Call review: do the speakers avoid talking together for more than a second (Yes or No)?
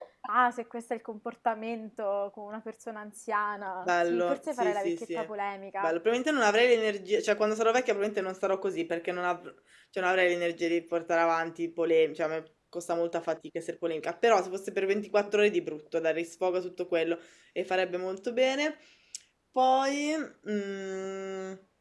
No